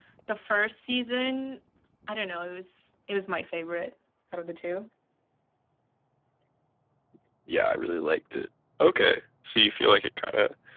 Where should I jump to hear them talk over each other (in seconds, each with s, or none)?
none